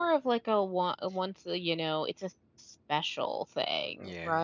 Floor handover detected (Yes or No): Yes